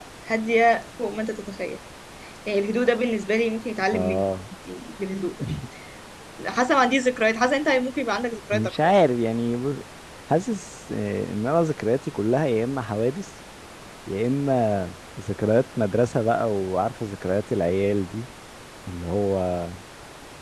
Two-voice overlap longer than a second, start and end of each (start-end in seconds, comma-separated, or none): none